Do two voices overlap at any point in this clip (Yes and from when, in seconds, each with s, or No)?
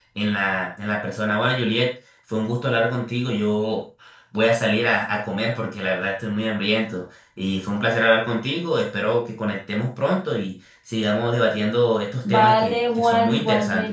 Yes, from 12.2 s